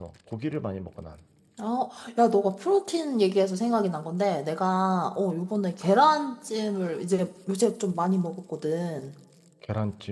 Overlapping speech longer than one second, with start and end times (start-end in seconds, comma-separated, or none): none